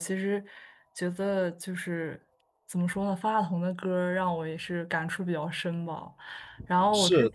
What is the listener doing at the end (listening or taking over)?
listening